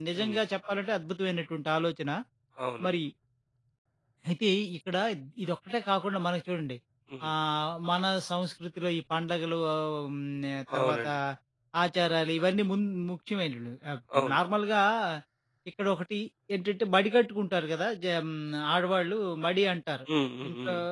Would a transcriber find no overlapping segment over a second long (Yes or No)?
Yes